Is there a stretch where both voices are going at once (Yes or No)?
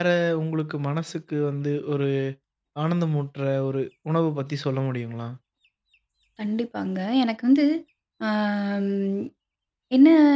No